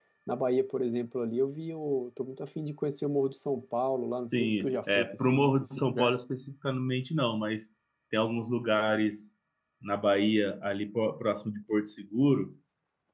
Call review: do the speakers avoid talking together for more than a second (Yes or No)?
No